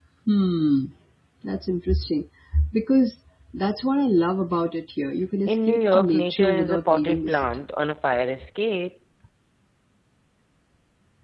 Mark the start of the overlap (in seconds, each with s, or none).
5.4 s